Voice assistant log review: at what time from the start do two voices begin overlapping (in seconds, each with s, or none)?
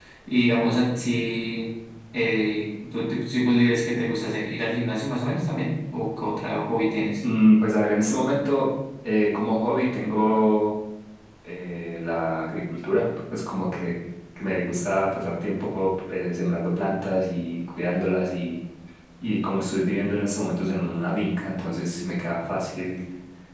none